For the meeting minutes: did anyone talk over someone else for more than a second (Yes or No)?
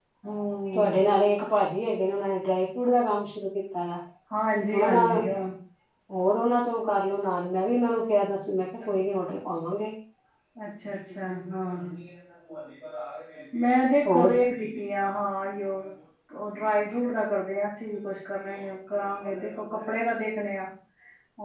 No